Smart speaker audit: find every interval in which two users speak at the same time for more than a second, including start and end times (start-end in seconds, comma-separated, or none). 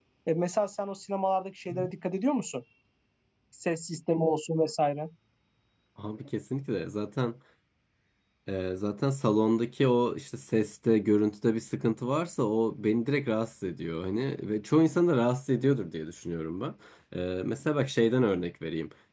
none